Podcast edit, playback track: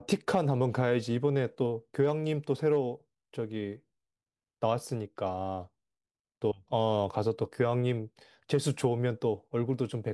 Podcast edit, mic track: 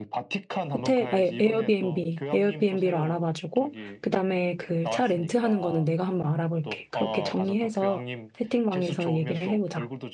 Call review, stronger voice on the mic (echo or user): user